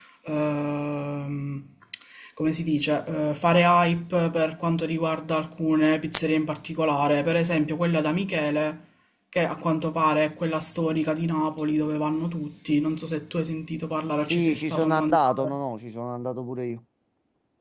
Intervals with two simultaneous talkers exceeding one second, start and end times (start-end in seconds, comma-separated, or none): 14.2-15.6